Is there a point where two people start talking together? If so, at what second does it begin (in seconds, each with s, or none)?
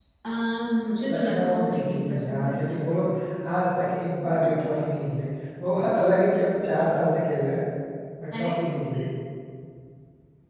1.1 s